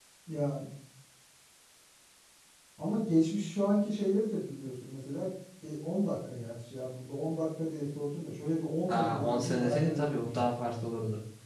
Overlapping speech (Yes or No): Yes